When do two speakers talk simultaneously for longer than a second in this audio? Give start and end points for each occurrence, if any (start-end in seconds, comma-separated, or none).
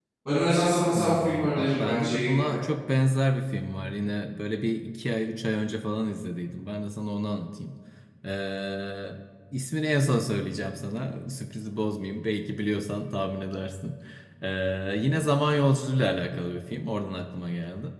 0.9-2.6